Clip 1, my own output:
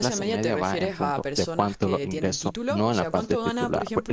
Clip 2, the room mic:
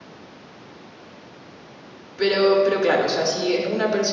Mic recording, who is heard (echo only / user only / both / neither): user only